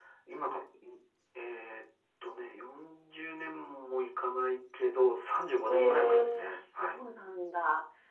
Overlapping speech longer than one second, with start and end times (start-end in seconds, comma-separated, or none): 5.7-7.0